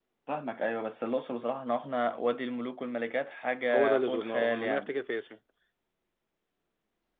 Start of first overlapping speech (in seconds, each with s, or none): 3.7 s